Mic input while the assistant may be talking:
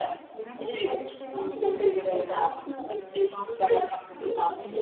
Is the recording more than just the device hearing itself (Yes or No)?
No